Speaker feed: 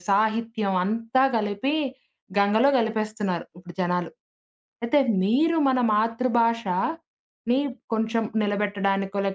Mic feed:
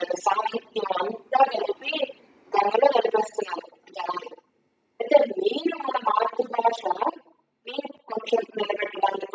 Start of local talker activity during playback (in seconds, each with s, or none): none